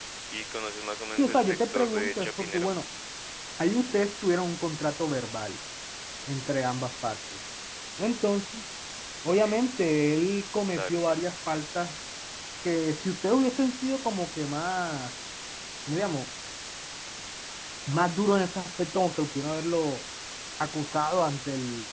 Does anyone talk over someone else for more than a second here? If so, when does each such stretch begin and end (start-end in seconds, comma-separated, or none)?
1.2-2.8